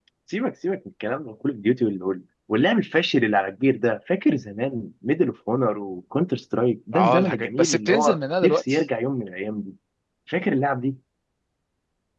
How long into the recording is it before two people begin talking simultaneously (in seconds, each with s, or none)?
6.9 s